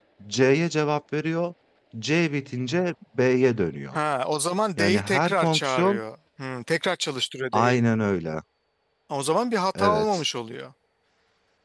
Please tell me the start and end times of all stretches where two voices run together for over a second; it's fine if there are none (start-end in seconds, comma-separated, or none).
4.8-6.0